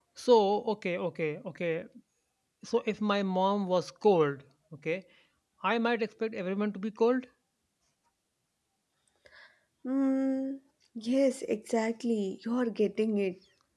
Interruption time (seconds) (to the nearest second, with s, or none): none